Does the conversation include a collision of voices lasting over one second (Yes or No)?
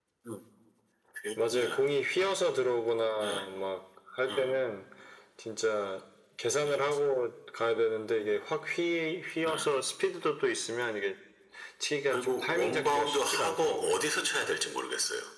Yes